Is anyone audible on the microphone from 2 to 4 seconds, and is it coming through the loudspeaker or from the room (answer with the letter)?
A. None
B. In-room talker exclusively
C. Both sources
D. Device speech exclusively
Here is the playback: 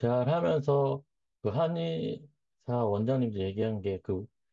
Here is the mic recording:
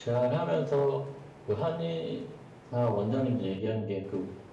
D